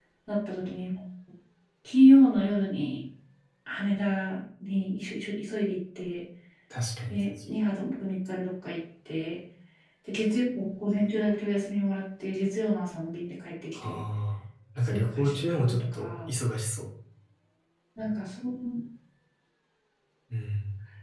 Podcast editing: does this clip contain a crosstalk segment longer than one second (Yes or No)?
Yes